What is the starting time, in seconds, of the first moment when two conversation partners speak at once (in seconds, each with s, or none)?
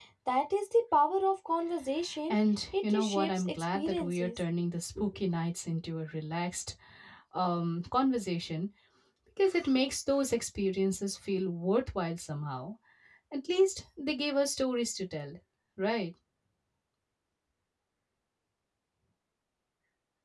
2.9 s